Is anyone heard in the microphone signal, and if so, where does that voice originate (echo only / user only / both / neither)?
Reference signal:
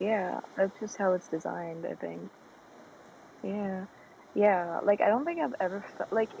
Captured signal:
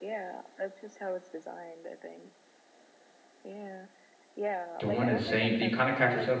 both